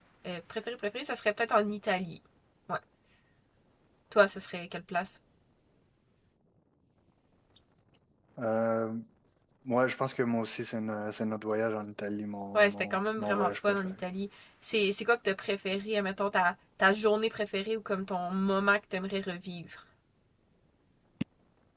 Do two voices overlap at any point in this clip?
Yes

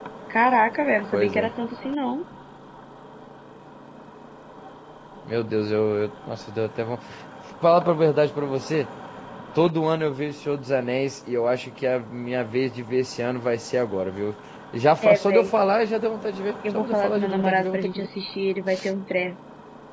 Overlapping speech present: Yes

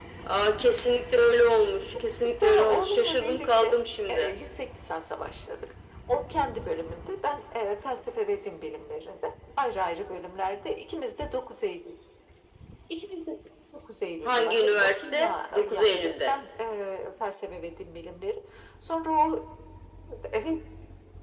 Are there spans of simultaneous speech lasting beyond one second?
Yes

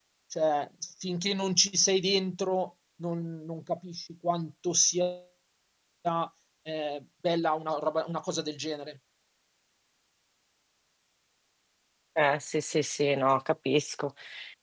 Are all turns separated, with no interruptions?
Yes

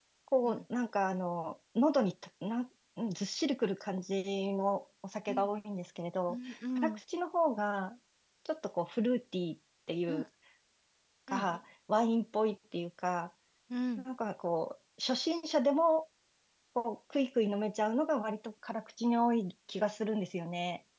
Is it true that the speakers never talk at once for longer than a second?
Yes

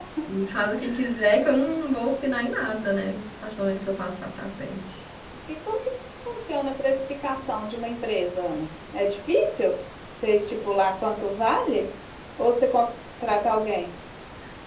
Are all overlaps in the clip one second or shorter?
Yes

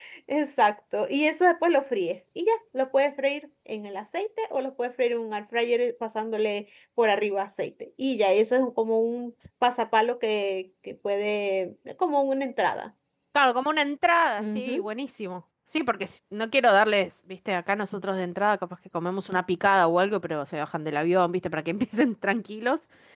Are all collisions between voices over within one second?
Yes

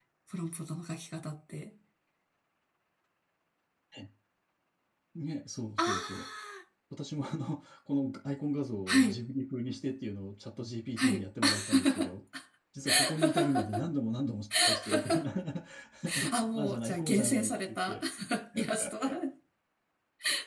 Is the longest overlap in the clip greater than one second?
Yes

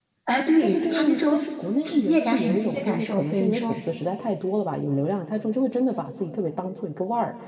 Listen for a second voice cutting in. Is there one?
Yes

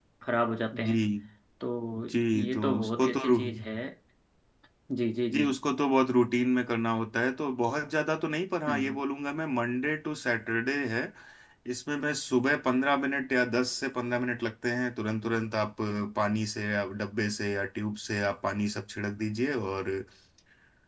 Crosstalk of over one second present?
Yes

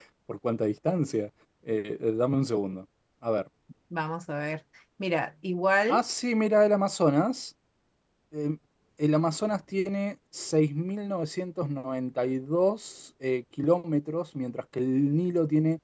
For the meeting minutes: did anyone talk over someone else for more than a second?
No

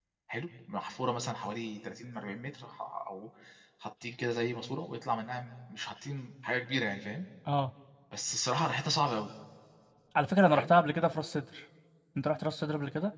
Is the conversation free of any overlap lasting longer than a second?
Yes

